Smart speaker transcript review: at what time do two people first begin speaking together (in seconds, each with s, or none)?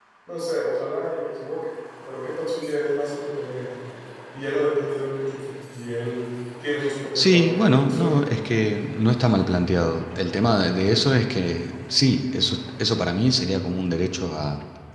7.2 s